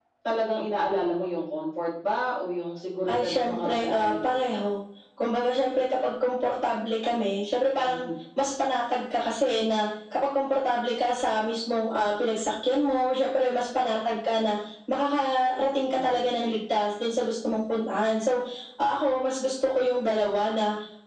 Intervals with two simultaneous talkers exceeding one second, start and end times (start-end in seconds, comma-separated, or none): 3.1-4.4